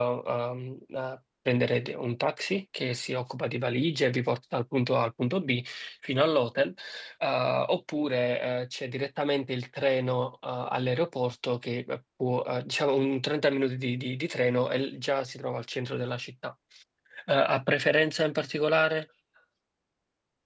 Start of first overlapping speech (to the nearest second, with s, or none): none